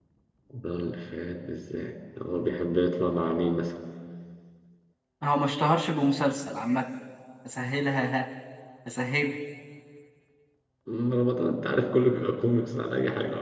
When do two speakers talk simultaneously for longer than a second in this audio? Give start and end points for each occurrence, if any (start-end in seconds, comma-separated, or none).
none